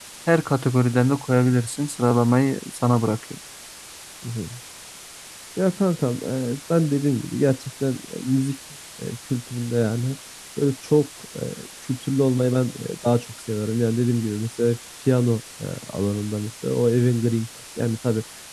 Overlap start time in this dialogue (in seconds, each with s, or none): none